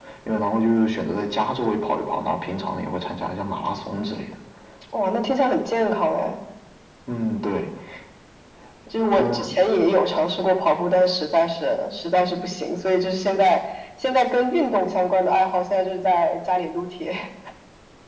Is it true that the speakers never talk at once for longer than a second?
Yes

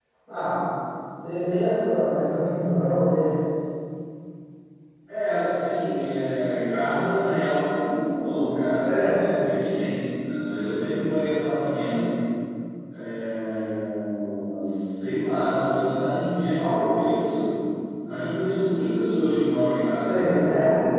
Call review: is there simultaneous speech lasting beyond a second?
No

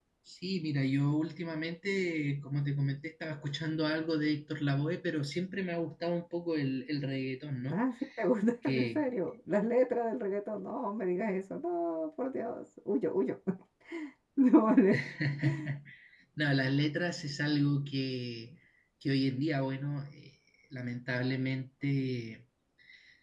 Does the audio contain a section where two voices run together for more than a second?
No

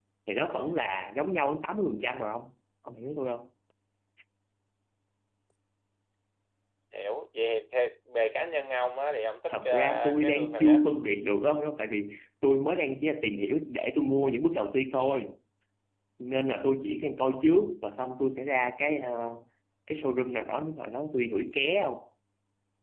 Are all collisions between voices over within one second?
No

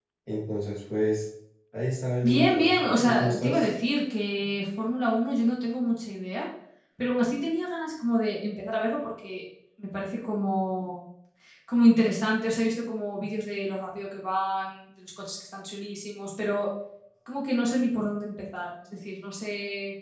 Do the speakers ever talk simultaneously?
Yes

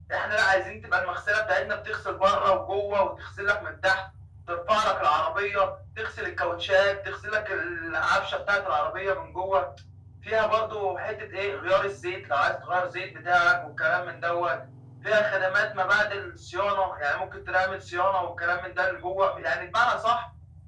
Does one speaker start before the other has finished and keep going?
No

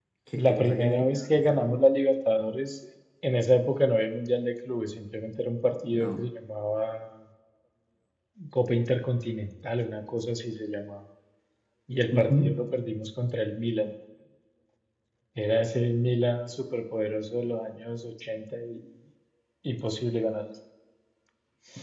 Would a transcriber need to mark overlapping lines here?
Yes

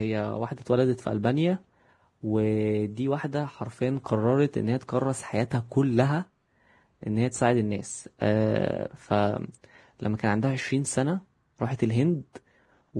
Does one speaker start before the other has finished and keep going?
No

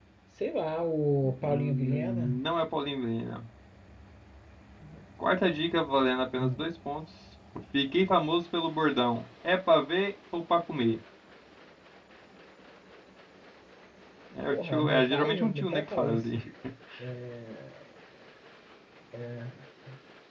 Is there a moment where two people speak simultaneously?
Yes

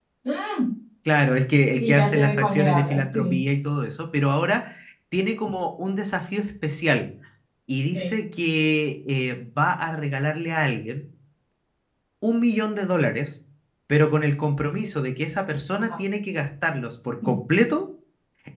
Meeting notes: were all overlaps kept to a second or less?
No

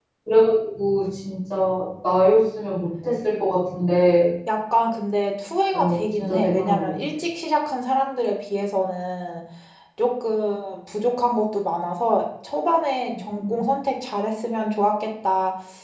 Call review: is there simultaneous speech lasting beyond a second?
Yes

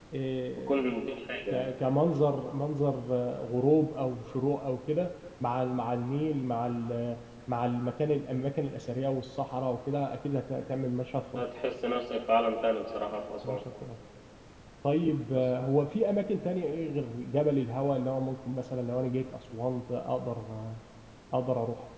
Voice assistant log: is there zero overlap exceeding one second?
Yes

